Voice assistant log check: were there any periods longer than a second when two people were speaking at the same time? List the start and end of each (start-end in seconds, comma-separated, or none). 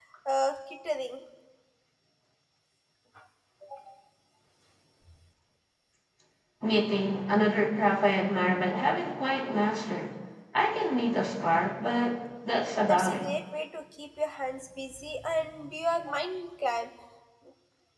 none